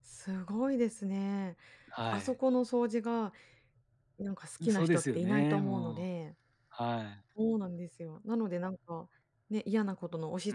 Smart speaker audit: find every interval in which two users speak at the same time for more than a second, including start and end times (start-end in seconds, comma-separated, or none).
4.7-6.0